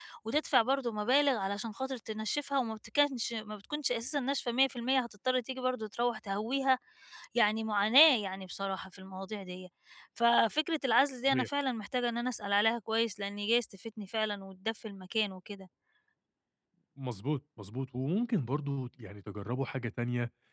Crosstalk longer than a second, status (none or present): none